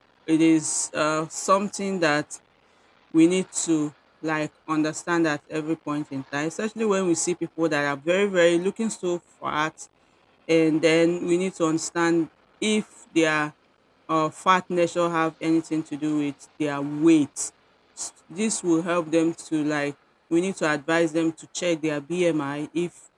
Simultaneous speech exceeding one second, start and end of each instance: none

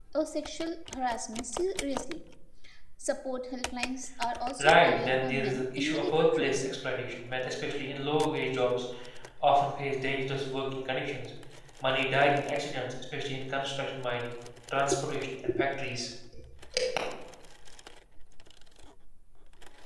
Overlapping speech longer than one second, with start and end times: 4.6-6.6

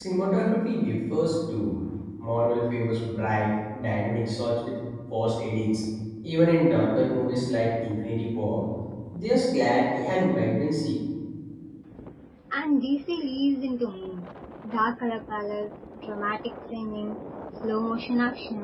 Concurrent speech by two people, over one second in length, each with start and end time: none

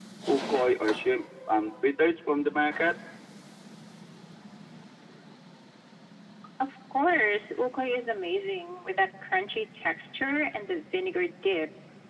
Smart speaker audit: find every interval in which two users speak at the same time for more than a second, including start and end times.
none

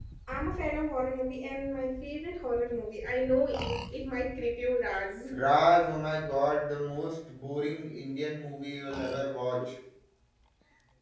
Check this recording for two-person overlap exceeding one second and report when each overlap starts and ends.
none

